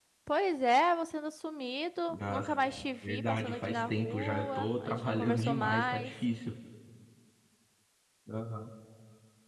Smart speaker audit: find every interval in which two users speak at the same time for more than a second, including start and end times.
3.0-6.1

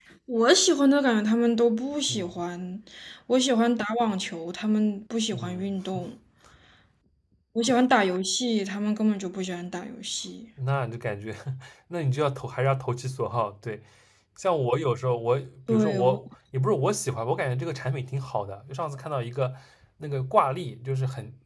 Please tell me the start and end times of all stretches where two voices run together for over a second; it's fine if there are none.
none

